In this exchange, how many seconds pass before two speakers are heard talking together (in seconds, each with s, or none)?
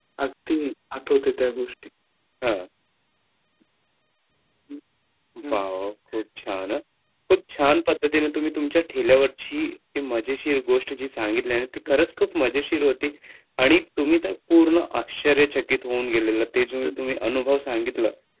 none